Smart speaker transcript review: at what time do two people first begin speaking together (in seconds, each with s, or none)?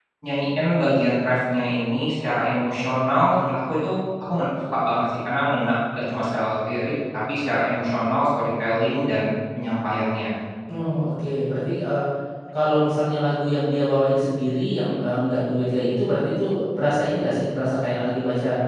none